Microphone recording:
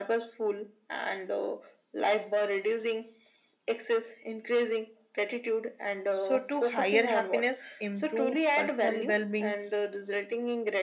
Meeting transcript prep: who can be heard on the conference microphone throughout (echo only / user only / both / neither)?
both